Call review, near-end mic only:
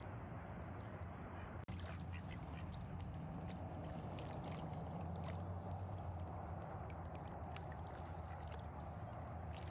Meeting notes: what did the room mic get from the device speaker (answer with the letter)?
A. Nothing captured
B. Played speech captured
A